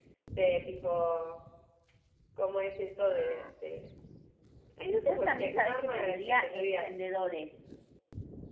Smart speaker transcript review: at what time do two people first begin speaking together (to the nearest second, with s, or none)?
5 s